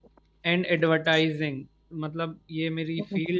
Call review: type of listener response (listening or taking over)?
listening